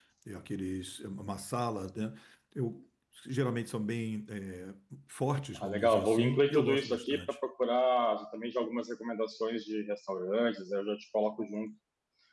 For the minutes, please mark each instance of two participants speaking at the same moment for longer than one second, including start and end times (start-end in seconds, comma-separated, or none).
5.6-7.4